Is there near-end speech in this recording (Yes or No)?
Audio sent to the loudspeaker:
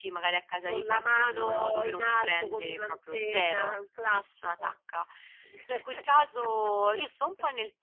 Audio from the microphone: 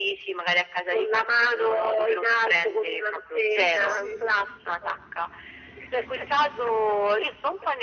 Yes